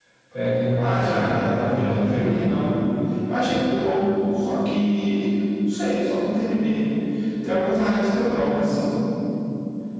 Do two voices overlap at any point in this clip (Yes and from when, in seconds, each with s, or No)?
Yes, from 0.8 s